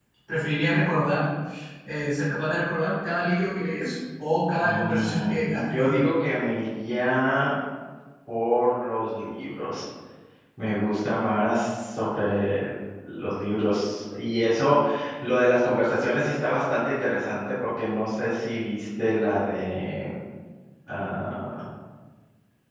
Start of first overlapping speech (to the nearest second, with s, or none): 5 s